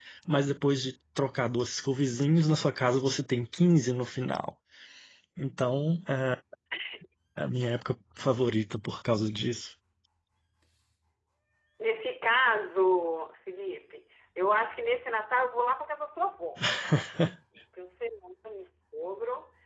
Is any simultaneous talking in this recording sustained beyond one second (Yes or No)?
No